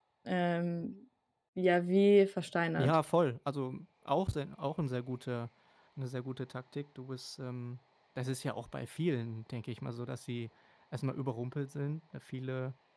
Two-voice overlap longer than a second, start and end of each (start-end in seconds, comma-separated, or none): none